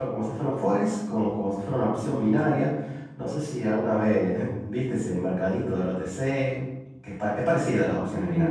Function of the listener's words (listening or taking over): taking over